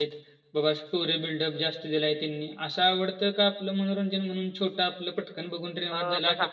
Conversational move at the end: taking over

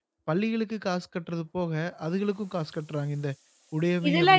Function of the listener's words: taking over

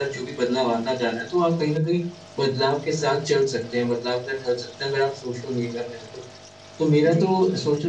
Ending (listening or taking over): listening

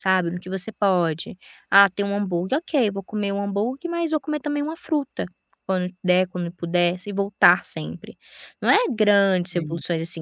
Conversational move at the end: listening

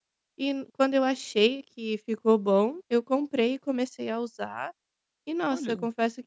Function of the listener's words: listening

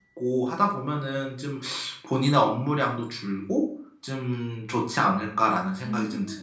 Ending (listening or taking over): taking over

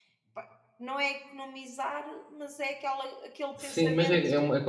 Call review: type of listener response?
taking over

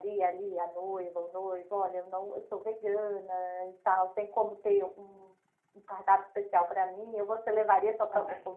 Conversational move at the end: taking over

